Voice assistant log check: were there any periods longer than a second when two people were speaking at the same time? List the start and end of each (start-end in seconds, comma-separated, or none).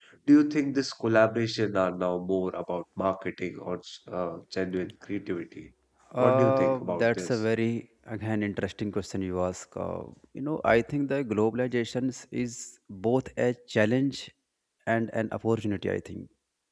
6.2-7.4